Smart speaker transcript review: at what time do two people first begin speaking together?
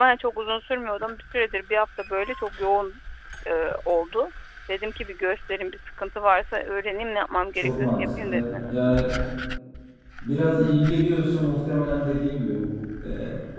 7.5 s

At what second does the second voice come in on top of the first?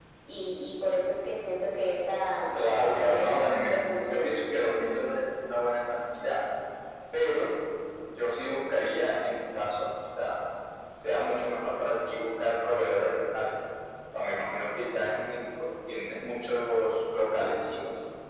2.5 s

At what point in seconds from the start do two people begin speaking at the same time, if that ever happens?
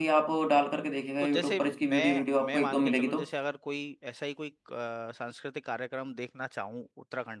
1.2 s

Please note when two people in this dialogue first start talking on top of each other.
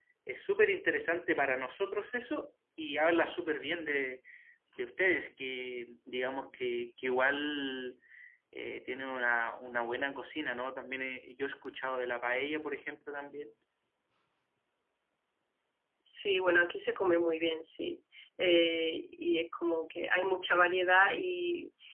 none

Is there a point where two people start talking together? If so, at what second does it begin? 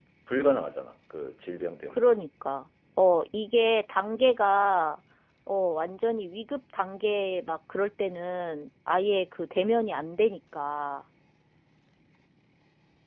none

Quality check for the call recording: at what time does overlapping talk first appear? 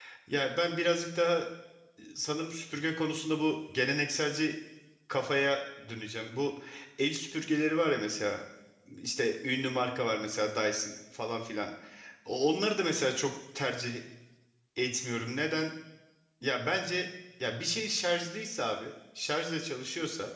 none

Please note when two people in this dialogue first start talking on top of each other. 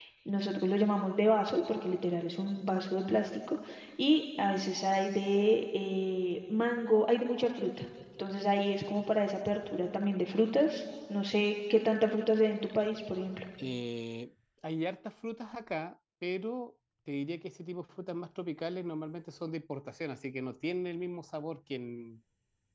none

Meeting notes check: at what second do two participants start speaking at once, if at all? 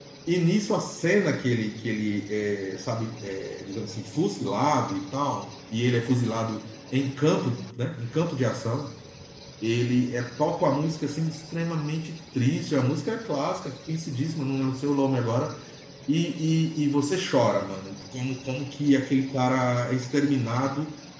none

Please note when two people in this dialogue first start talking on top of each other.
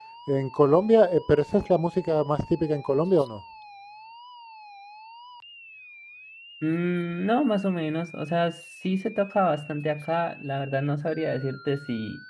none

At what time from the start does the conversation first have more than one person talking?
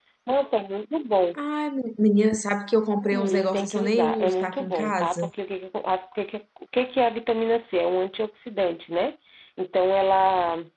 3.1 s

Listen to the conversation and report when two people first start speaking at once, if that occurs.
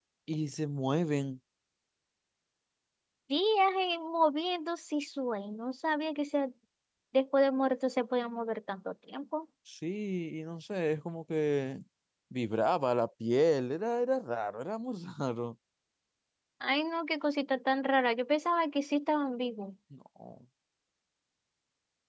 none

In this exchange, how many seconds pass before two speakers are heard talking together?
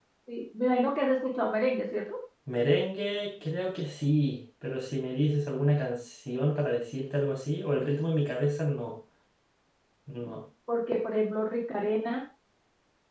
none

